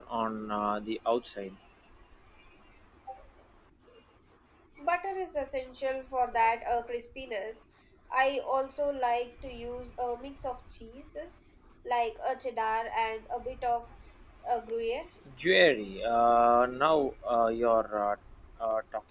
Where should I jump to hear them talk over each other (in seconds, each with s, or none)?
none